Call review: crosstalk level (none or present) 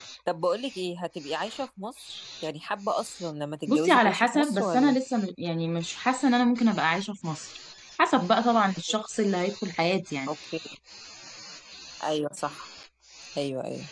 present